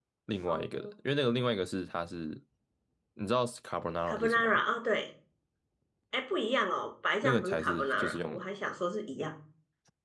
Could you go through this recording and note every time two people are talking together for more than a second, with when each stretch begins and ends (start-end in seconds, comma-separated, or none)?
7.2-8.4